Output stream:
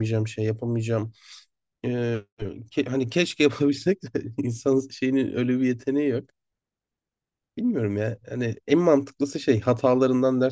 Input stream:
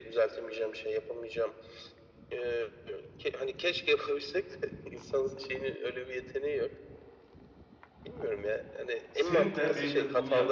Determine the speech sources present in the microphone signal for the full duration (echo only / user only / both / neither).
both